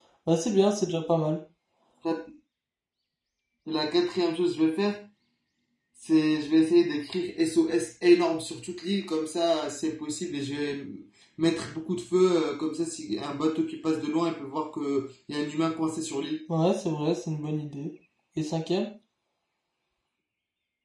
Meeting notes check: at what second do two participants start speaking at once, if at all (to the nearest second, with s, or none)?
none